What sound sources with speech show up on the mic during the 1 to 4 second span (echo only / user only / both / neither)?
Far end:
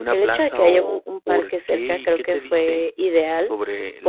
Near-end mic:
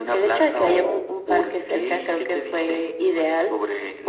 echo only